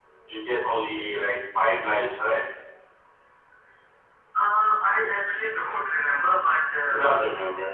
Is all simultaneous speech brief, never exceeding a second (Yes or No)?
Yes